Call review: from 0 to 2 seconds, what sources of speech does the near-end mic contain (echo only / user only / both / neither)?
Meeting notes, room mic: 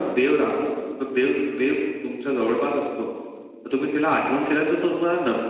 echo only